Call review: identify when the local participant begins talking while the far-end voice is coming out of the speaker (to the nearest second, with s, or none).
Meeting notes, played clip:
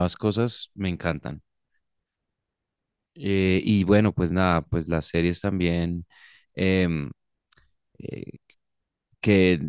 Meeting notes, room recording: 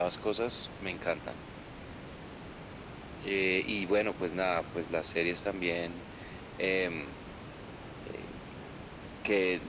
none